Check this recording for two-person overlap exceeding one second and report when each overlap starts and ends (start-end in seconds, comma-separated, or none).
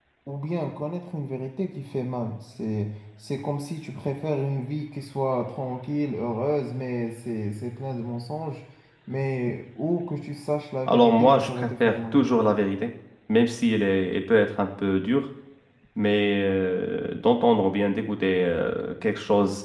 10.9-12.2